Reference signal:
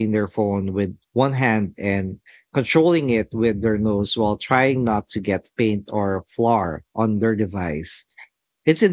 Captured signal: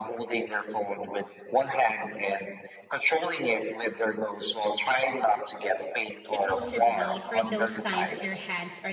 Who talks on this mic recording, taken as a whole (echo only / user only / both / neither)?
both